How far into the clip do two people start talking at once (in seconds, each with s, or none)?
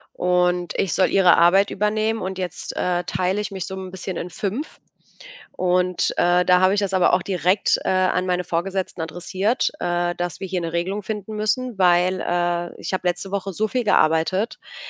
none